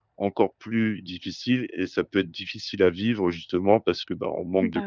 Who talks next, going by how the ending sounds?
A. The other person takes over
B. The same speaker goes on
B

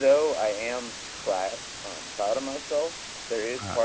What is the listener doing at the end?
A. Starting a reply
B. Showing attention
B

